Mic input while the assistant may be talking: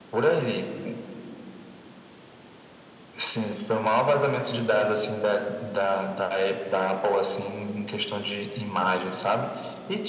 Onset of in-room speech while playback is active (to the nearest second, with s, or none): none